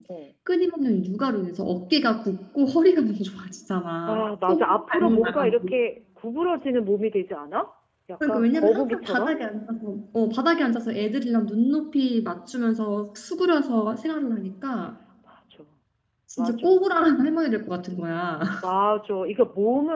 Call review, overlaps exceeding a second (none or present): present